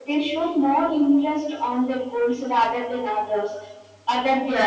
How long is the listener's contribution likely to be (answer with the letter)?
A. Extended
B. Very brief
A